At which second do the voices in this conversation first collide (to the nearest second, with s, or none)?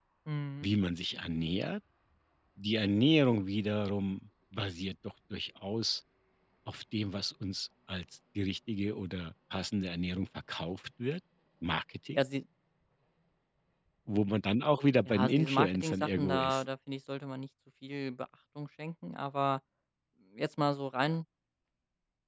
15 s